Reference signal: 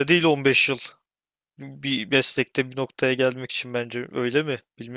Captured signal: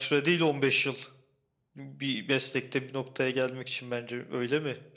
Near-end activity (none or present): none